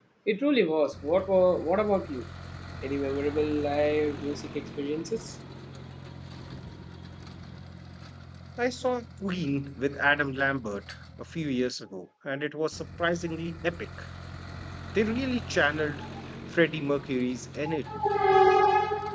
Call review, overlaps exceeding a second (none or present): none